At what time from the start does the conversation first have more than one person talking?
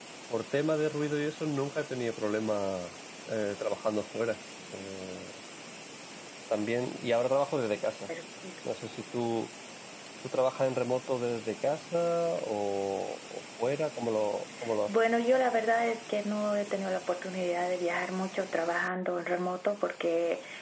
none

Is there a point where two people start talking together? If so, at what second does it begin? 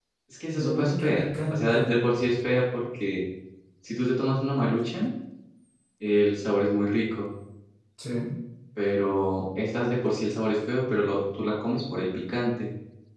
0.6 s

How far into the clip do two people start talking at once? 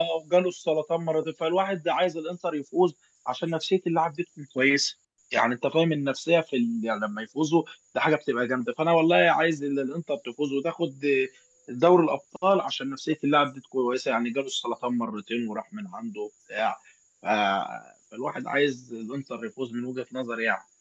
none

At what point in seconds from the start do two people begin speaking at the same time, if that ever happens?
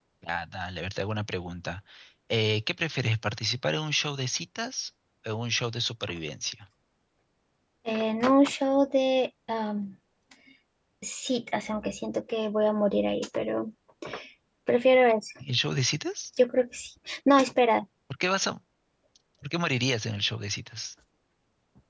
none

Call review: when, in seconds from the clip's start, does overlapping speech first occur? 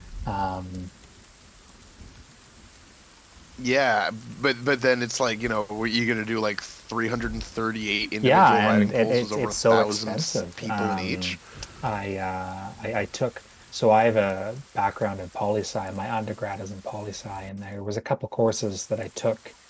8.2 s

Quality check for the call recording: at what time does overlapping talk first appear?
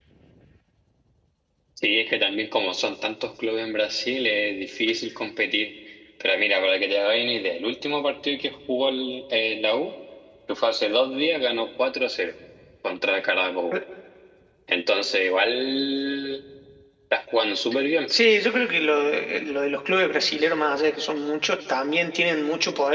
none

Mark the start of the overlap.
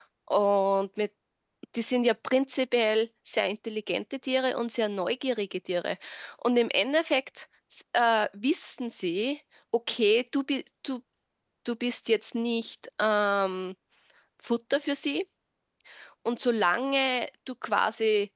none

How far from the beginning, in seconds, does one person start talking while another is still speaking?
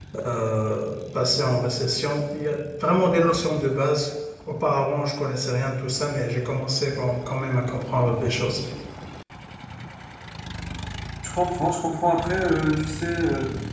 none

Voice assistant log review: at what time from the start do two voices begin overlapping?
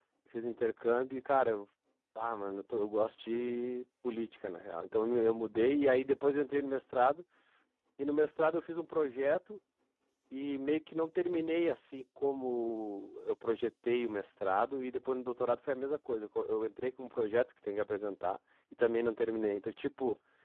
none

